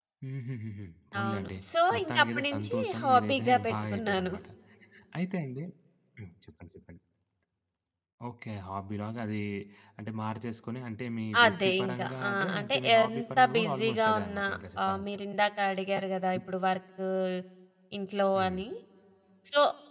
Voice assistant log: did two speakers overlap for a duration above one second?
Yes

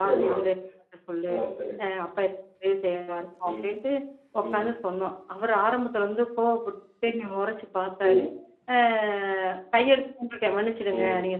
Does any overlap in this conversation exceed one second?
No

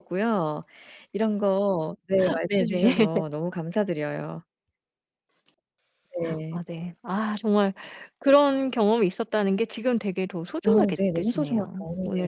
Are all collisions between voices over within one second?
No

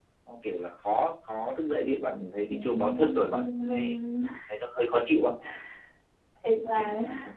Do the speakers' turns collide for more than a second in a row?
Yes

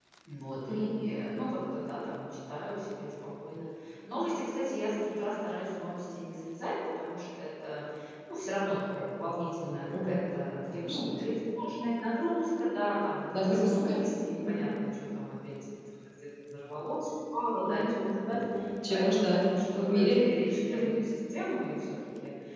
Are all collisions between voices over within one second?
No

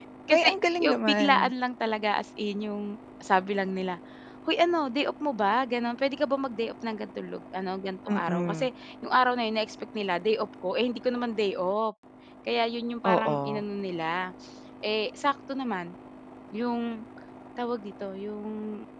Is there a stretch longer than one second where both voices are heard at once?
Yes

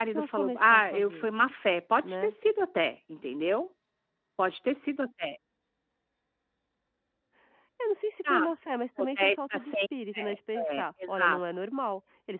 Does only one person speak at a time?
No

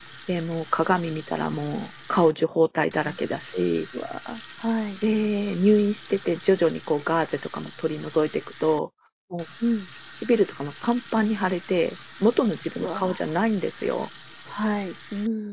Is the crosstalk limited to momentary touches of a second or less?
Yes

